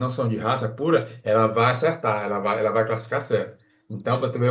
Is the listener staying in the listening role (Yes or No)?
Yes